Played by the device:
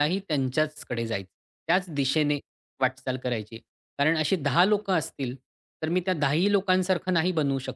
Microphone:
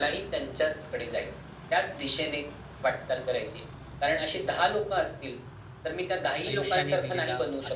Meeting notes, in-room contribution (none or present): present